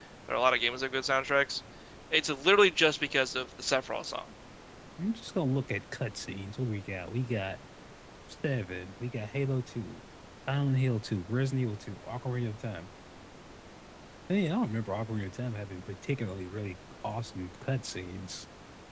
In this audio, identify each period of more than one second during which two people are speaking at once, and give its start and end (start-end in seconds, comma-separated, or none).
none